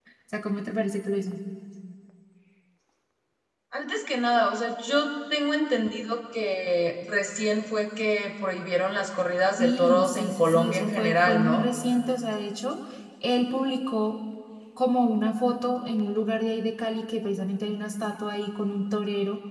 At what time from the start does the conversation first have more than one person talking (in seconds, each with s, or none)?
9.6 s